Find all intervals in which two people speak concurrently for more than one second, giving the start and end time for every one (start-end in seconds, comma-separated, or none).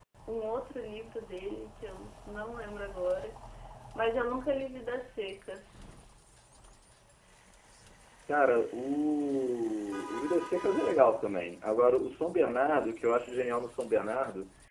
none